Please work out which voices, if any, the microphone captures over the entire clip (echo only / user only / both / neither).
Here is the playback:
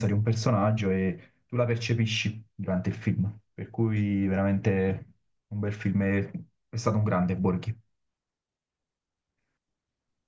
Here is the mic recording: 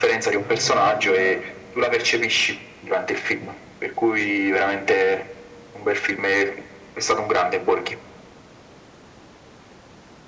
both